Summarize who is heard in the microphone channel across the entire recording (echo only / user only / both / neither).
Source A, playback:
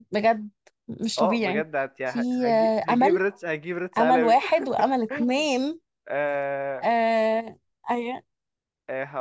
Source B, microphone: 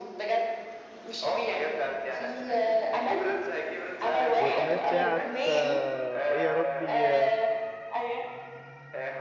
both